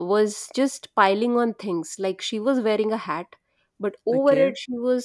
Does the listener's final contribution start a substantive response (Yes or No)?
No